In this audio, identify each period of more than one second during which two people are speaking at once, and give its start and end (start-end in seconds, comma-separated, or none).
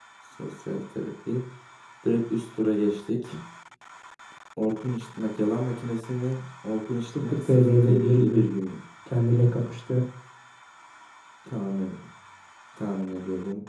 7.2-8.4